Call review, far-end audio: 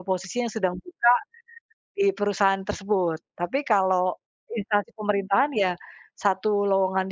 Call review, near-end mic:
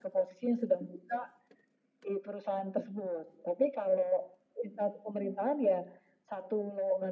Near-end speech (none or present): none